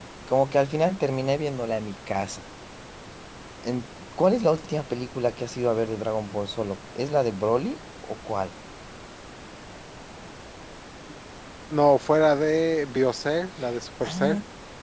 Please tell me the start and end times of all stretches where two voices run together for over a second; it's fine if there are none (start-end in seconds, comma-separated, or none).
none